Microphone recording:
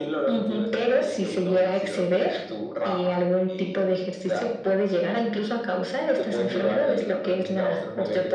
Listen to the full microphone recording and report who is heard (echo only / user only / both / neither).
echo only